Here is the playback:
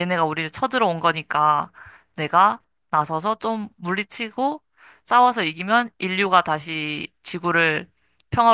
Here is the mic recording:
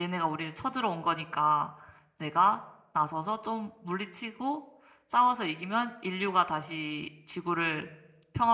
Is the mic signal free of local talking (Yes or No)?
Yes